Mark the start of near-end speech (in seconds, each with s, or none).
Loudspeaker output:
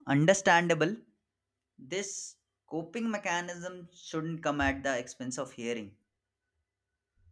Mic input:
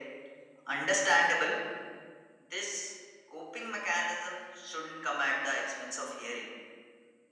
none